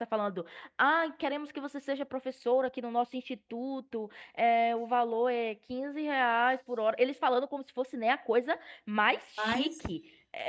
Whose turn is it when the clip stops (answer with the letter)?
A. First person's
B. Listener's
A